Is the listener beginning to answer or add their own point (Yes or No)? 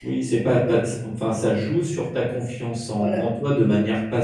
No